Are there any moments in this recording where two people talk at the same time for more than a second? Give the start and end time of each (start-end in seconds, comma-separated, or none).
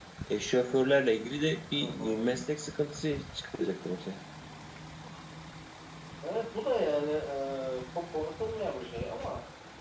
none